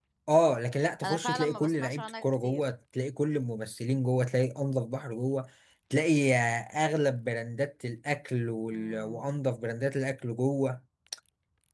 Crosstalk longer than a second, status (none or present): present